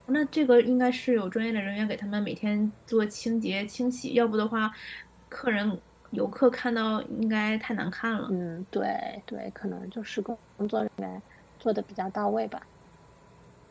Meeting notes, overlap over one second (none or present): none